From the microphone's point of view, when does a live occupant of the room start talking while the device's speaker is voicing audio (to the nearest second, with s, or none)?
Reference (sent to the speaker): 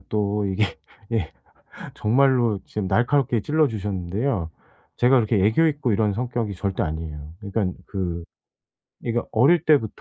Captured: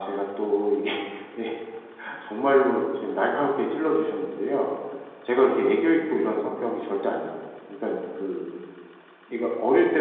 none